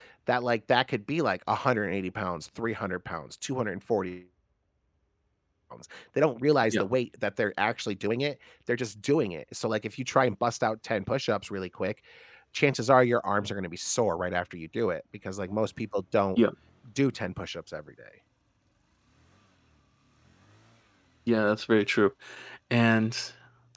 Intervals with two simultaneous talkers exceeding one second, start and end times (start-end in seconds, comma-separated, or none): none